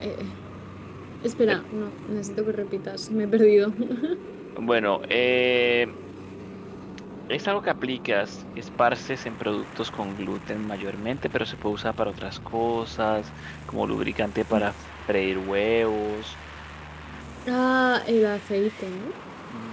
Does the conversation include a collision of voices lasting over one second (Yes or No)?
No